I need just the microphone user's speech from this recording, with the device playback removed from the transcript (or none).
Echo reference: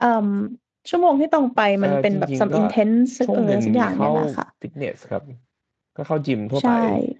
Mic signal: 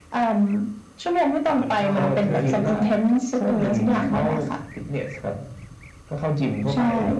สามพันห้ามั้งนะเห